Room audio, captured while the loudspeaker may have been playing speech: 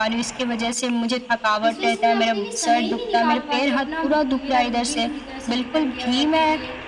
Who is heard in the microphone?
both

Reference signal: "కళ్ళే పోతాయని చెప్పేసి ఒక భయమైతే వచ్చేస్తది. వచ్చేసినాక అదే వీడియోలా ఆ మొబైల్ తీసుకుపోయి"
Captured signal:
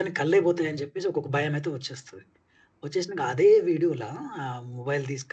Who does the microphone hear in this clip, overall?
echo only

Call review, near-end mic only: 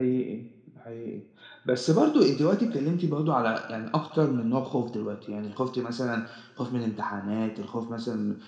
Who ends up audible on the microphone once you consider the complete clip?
user only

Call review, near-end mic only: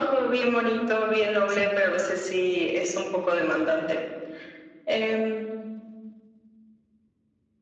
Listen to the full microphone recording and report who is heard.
both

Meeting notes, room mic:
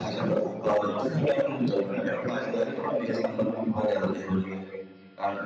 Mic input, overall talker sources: echo only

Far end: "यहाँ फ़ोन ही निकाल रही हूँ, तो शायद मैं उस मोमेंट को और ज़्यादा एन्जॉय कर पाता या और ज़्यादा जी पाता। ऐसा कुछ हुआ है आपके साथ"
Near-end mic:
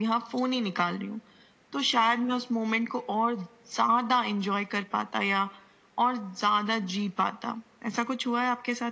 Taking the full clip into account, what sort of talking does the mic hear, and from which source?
echo only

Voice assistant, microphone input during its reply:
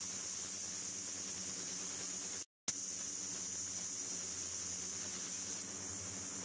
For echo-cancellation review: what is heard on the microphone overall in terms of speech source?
neither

